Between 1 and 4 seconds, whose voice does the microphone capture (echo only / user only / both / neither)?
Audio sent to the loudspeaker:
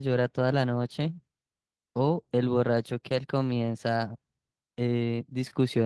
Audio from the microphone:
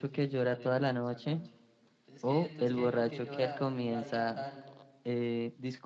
both